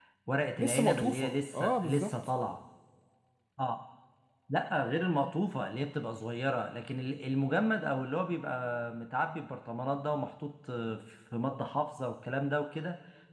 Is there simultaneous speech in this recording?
Yes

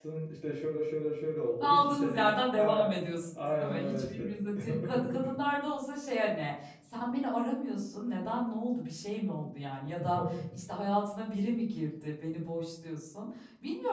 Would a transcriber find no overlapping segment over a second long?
No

